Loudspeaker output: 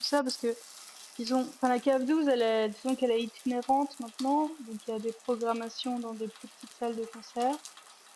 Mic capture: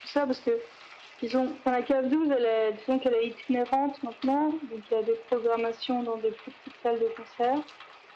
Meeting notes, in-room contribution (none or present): none